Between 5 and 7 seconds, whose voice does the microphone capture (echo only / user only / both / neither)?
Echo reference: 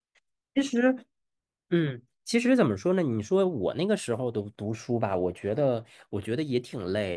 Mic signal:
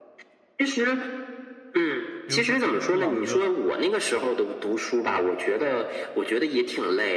echo only